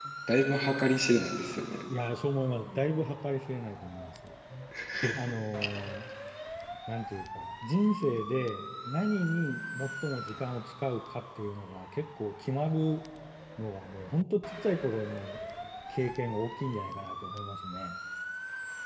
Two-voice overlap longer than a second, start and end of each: none

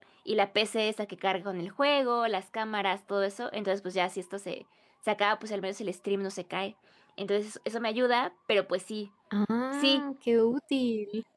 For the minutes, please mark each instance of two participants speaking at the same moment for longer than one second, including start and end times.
none

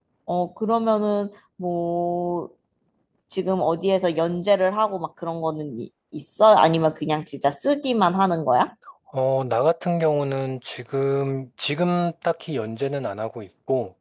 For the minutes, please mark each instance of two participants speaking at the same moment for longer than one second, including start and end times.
none

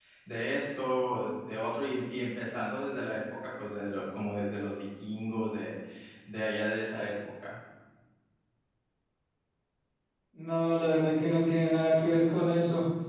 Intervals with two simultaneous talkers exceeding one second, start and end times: none

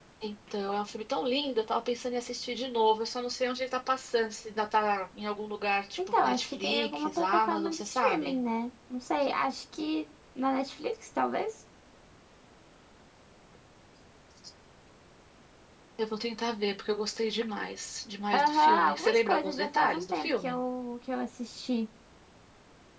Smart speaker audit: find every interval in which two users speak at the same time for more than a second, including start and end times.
6.1-8.4, 18.3-20.6

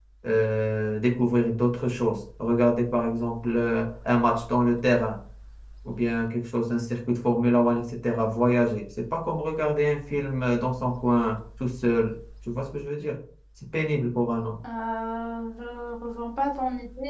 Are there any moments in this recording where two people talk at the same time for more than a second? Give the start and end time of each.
none

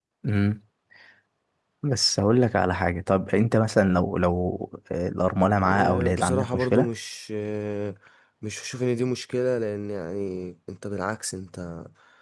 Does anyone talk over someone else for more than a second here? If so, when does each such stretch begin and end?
5.7-6.9

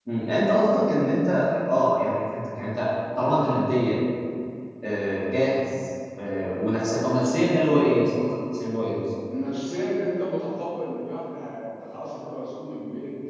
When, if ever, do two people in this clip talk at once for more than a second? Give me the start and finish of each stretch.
none

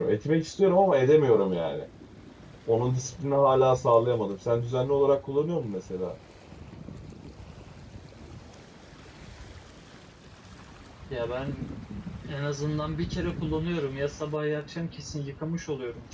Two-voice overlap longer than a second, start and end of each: none

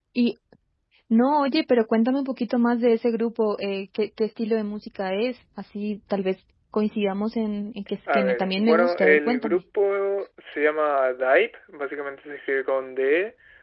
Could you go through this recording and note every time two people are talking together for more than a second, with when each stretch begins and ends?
8.1-9.6

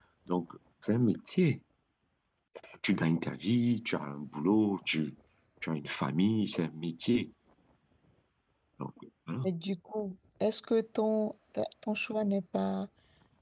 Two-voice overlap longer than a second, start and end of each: none

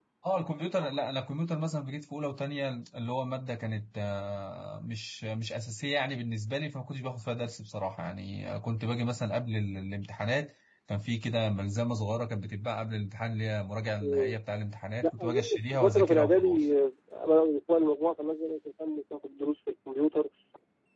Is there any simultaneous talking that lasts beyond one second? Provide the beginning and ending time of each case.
15.0-16.7

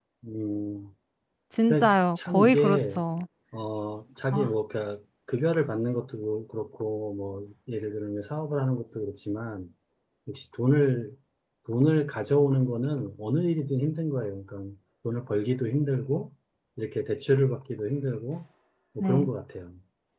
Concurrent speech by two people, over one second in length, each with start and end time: 1.7-3.0

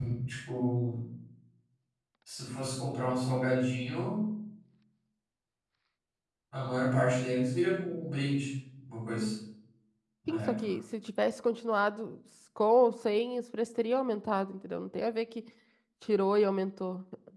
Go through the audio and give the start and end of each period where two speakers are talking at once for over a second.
none

